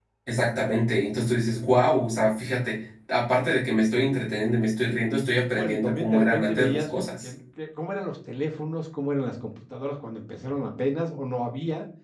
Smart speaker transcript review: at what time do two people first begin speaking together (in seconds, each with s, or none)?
5.4 s